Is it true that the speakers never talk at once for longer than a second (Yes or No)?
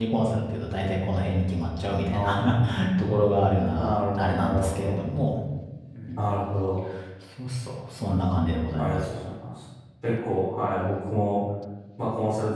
No